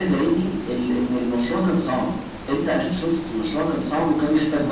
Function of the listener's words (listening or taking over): taking over